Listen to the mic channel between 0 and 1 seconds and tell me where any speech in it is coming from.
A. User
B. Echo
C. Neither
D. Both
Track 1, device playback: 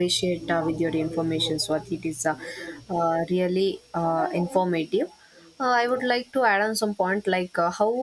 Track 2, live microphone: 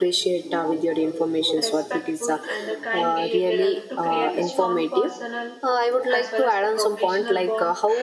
B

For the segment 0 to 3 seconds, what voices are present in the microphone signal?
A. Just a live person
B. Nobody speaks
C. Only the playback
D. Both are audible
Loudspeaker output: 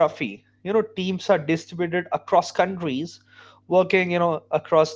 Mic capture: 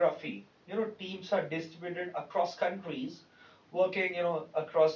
C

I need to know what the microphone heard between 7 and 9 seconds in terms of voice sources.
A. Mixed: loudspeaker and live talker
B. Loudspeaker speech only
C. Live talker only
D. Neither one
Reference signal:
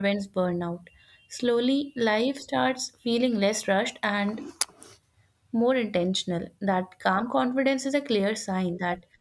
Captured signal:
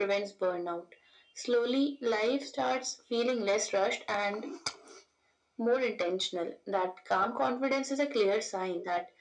B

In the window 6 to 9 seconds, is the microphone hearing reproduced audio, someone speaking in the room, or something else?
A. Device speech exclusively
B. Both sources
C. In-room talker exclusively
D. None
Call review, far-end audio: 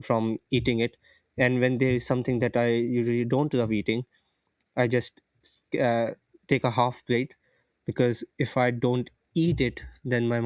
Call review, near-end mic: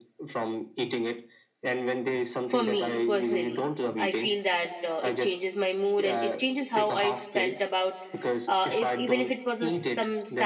B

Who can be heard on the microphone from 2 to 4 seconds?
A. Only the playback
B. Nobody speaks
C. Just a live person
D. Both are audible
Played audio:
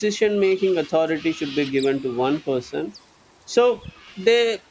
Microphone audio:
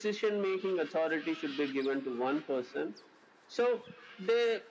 A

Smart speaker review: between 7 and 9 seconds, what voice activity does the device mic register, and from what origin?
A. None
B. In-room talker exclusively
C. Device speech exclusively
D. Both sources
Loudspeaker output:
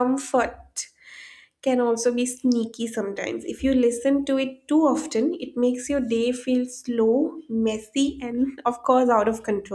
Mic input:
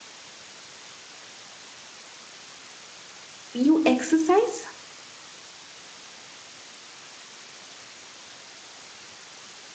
A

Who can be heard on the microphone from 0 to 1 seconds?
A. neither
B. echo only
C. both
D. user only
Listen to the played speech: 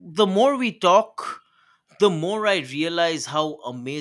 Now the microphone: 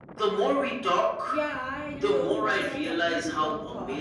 B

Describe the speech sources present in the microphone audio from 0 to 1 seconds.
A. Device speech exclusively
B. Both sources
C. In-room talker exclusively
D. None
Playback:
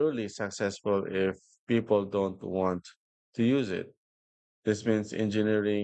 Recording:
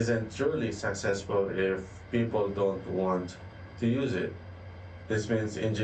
A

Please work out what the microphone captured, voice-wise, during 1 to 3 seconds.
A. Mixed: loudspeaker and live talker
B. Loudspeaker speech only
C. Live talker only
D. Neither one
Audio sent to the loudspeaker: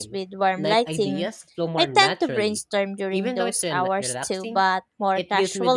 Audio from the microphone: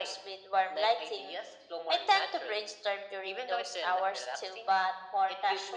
B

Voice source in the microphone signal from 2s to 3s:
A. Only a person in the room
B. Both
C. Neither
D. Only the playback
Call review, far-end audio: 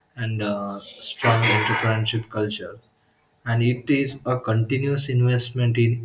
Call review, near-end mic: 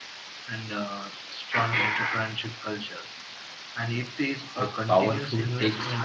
D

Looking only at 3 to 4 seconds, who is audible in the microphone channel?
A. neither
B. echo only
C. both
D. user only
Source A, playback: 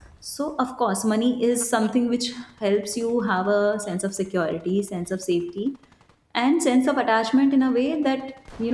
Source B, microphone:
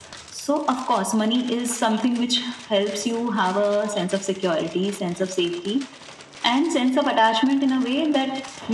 B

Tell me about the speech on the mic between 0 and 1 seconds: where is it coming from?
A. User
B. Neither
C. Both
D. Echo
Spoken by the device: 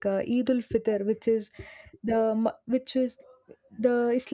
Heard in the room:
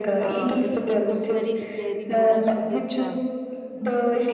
C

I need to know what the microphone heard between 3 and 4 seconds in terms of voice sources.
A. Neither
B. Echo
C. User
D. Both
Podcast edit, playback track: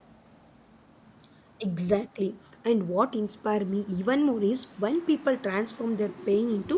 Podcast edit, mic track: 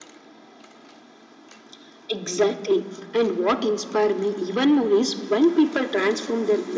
B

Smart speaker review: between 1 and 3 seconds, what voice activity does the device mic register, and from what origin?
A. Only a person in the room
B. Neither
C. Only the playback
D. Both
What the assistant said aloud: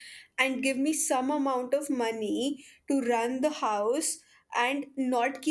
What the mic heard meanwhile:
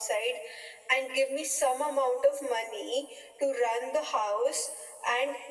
C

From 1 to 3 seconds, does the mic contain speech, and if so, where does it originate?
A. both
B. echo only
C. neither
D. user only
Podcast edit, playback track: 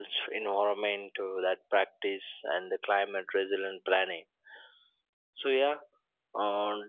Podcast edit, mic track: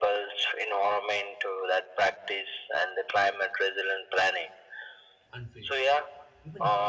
B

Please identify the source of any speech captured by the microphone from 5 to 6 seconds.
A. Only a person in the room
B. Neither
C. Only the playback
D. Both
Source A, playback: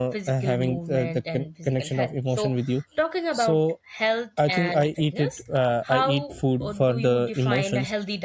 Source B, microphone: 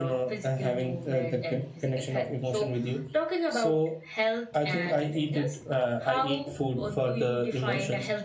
C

